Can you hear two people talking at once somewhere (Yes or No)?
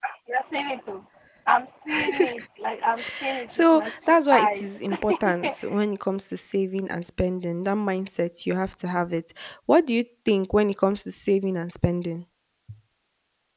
Yes